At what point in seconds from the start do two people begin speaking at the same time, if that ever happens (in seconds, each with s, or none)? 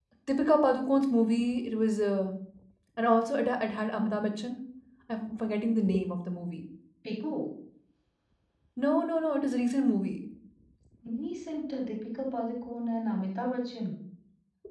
none